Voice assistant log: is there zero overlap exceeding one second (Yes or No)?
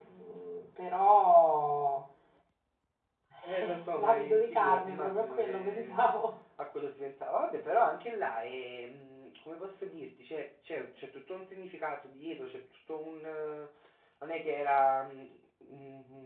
No